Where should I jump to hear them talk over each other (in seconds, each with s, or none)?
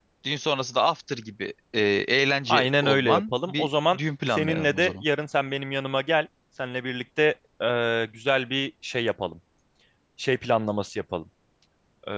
2.5 s